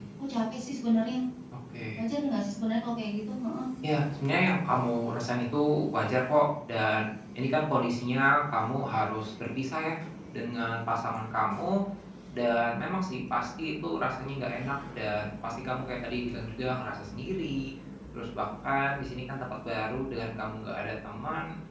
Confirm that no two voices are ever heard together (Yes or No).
Yes